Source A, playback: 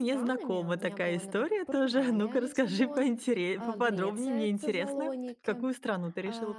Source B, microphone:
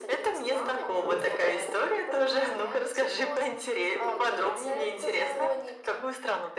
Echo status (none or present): present